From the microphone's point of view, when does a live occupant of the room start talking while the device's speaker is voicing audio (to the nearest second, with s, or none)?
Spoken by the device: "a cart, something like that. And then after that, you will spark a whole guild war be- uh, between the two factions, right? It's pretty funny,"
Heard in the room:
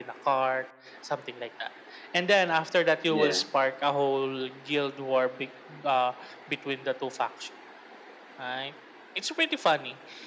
3 s